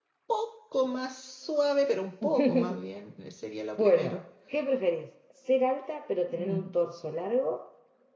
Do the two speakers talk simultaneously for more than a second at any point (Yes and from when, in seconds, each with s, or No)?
No